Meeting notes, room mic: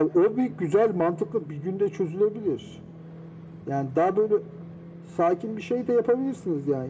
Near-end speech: none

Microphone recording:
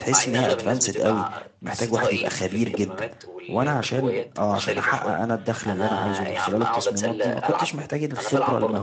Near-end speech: present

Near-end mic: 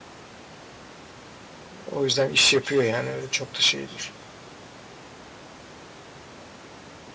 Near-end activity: present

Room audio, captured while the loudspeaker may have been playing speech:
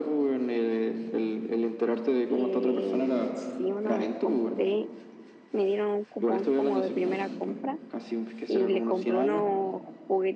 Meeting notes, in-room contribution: present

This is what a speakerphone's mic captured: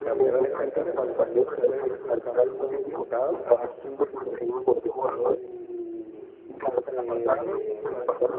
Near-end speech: present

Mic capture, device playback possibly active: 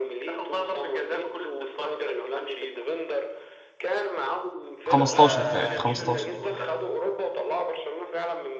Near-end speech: present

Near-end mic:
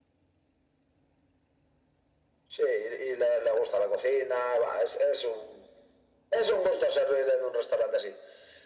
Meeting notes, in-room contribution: none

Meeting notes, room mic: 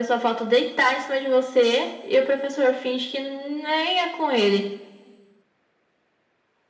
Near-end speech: none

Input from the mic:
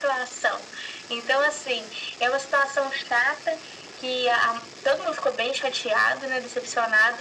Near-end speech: none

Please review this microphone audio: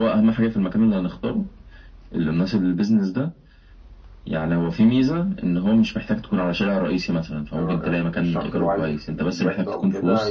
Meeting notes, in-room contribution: present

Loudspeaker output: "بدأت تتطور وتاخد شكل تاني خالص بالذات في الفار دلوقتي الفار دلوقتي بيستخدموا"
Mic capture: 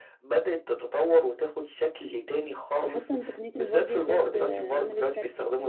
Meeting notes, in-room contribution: present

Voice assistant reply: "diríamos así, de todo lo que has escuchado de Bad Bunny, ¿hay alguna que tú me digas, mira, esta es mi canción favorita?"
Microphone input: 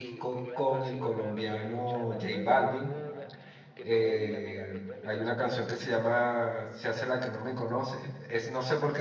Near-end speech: present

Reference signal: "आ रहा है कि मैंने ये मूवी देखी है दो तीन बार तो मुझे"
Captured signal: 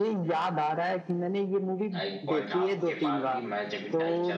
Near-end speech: present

